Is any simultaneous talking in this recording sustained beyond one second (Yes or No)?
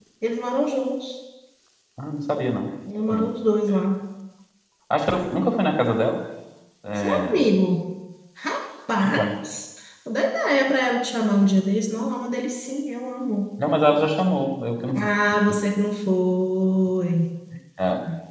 No